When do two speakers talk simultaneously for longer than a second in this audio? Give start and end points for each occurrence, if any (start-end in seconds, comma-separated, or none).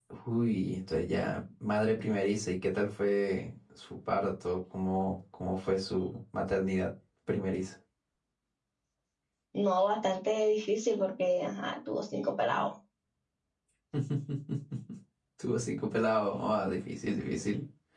none